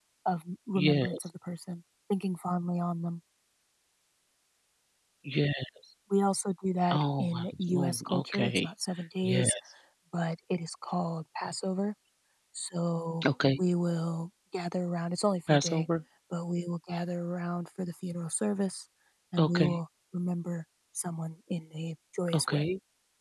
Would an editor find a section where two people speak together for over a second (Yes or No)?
Yes